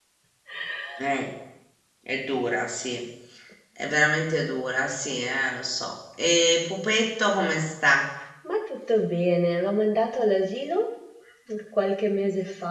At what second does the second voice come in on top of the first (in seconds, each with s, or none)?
none